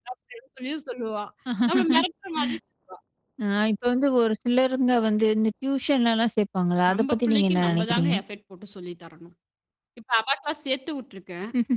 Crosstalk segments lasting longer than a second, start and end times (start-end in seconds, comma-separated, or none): 6.9-8.1